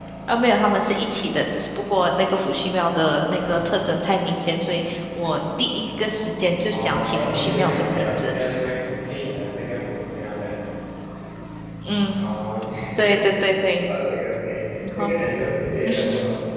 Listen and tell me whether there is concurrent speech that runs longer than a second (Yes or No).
Yes